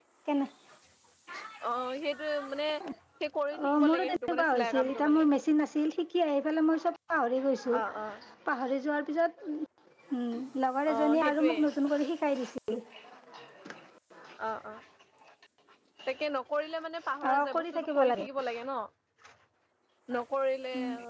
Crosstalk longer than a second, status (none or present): present